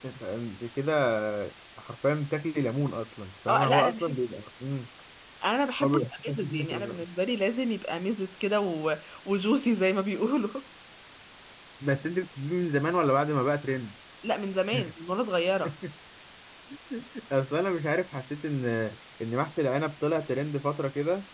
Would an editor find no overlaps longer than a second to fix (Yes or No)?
No